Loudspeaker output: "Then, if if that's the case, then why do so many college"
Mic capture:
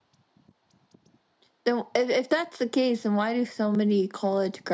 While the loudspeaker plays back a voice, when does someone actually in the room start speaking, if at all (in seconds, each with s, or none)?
none